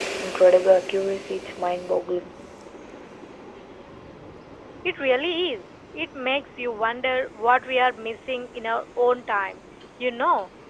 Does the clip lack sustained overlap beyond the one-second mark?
Yes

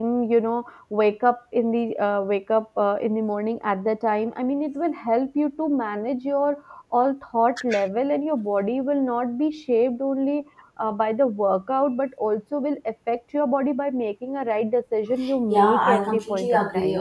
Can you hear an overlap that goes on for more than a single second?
Yes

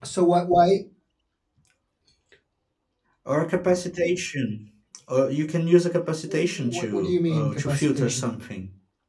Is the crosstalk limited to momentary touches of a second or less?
No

